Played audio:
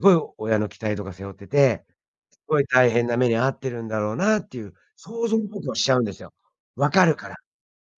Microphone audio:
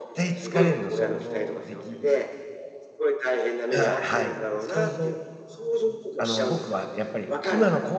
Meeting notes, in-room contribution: present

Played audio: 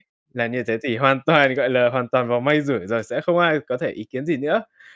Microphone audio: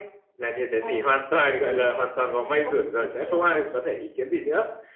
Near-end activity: present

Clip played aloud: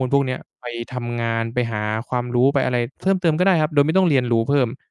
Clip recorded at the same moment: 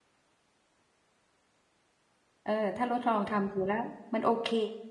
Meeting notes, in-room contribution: present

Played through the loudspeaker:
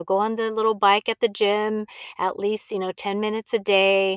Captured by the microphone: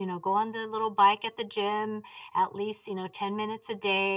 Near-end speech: none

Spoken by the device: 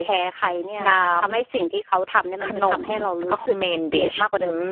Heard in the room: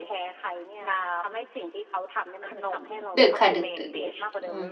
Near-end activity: present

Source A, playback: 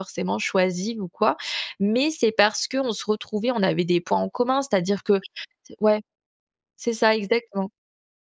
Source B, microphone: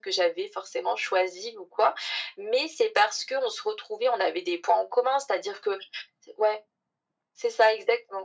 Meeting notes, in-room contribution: none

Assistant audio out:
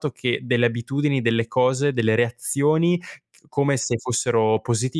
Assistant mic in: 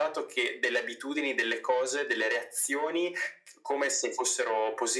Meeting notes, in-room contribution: none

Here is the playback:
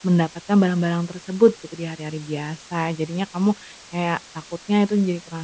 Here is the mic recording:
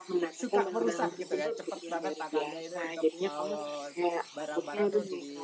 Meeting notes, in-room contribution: present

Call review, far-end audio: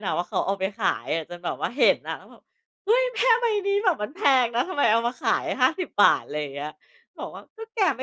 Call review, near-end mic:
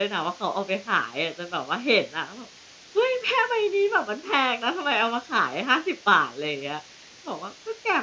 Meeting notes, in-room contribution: none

